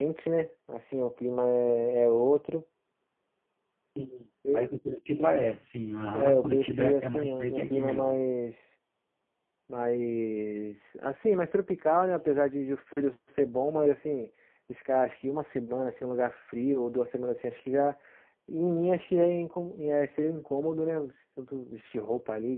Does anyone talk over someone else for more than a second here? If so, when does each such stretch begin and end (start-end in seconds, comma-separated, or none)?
6.1-8.2